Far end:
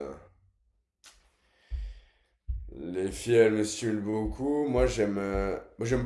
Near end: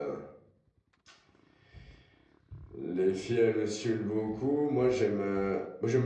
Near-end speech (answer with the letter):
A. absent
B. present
A